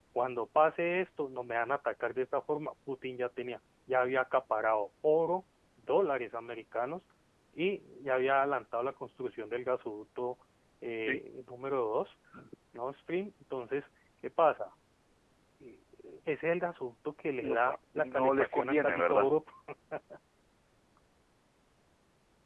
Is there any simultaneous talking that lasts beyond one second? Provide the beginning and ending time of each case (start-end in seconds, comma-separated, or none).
17.4-19.3